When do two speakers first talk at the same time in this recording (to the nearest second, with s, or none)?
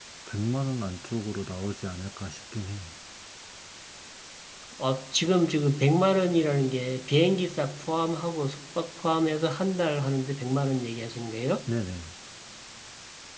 none